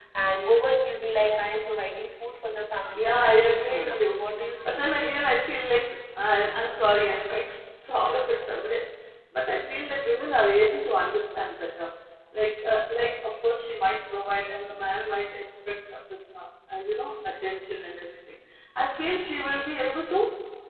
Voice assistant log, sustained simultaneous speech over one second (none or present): present